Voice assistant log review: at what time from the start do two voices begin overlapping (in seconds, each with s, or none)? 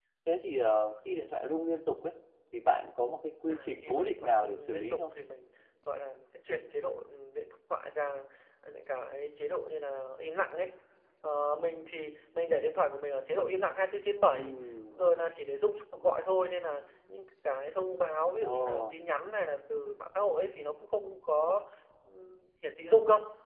3.5 s